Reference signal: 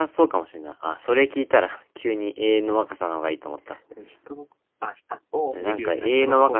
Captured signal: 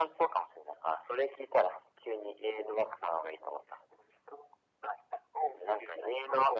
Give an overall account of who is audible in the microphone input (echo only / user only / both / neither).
echo only